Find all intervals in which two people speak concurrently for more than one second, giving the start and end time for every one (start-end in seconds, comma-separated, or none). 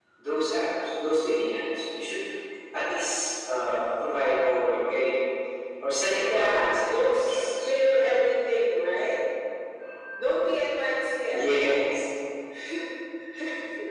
6.2-7.7